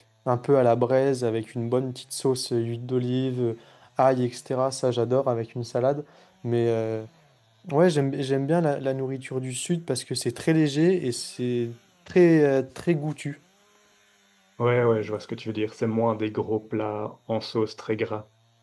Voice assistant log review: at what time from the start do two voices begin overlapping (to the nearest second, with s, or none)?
none